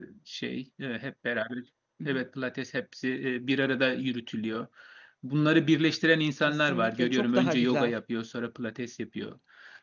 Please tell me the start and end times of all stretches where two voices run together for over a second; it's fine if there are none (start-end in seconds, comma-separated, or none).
6.5-7.9